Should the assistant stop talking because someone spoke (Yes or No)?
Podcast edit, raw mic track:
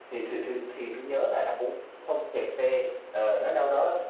No